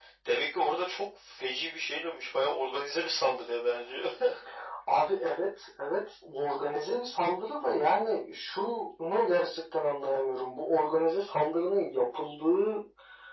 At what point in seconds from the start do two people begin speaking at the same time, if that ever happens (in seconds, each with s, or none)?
none